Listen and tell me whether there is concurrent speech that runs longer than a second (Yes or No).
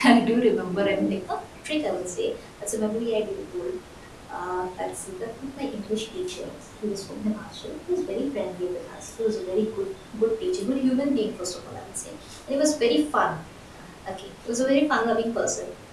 No